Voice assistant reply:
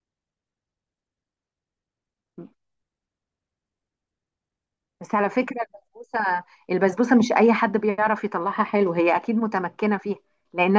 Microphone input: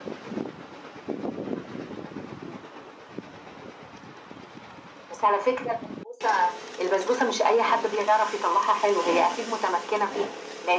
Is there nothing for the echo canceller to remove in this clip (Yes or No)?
No